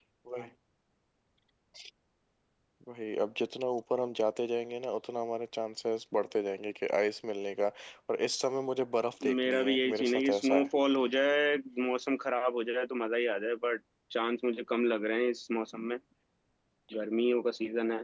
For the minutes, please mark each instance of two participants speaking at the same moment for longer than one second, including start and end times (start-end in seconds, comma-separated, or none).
9.4-10.7